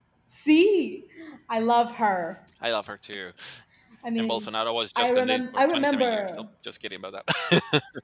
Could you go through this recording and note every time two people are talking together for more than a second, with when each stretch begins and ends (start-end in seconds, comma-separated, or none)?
5.0-6.4